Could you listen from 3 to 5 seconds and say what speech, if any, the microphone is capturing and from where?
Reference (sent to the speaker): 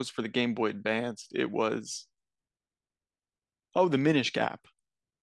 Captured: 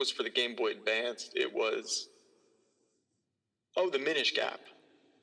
echo only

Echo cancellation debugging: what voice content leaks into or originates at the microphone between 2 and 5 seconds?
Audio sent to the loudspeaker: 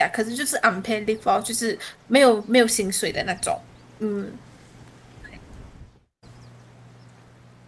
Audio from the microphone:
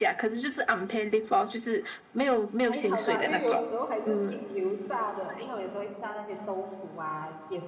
both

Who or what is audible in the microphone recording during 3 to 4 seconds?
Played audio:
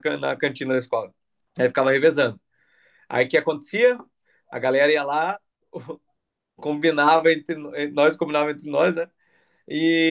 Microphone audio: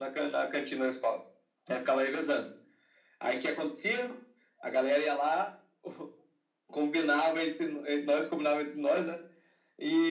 echo only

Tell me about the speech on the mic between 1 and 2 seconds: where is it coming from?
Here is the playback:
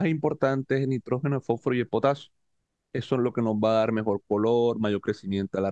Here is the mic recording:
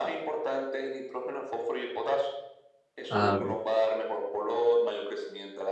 echo only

